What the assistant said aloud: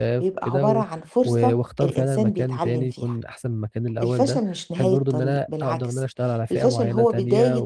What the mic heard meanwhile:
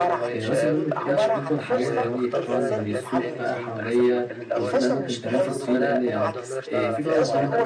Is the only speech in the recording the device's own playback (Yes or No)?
No